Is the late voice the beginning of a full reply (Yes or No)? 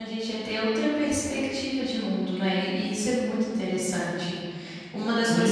Yes